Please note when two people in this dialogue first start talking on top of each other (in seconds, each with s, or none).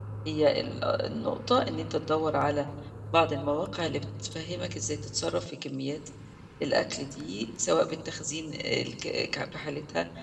none